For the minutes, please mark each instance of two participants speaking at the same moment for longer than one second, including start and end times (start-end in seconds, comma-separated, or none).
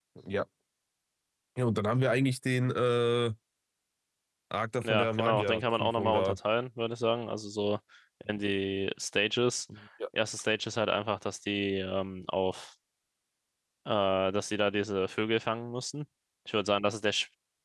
4.8-6.4